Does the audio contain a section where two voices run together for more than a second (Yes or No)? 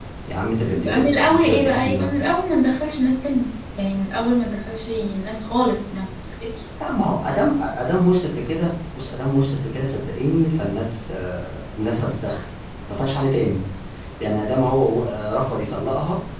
Yes